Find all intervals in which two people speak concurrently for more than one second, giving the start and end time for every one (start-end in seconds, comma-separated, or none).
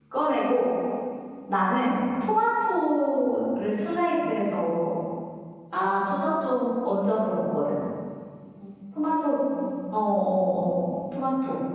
none